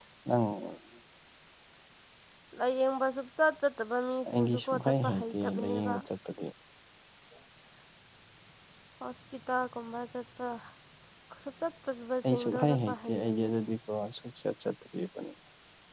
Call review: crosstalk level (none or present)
present